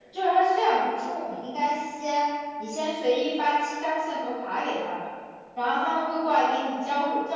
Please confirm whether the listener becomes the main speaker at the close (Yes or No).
No